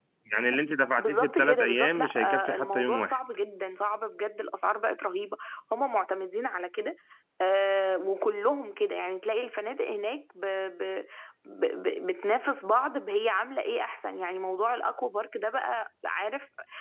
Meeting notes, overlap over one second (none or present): present